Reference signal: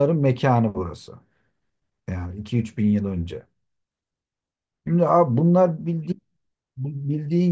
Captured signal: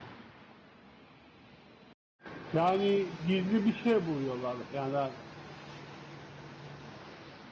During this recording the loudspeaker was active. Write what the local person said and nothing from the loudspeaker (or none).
Yani gizli bir şey buluyorlar. Yani